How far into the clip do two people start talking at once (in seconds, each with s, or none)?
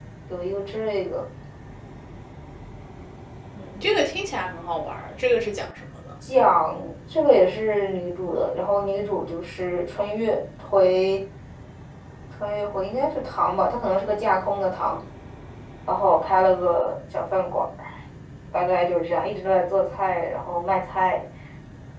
none